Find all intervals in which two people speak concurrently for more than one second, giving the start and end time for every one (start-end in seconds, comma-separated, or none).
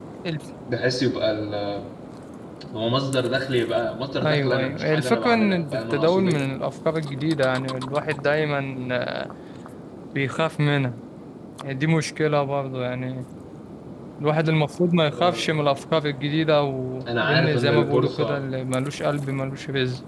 4.2-6.4, 17.2-18.4